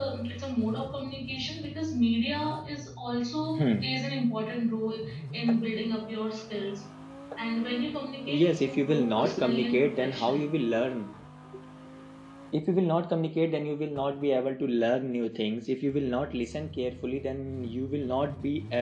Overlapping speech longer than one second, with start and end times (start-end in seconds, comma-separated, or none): 8.4-10.6